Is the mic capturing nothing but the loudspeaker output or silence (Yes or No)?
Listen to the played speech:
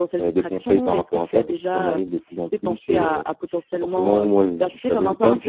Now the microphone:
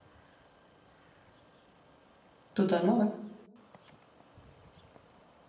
No